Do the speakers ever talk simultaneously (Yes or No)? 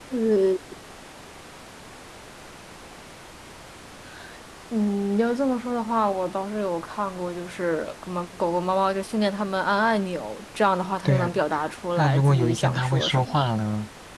Yes